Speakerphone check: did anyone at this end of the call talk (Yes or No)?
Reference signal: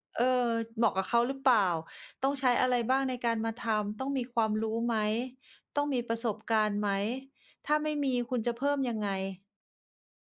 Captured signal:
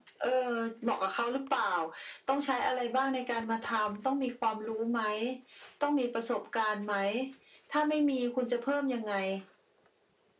No